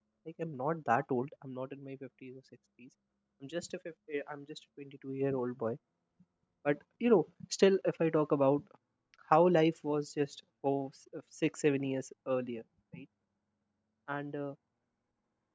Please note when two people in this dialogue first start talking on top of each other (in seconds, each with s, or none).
none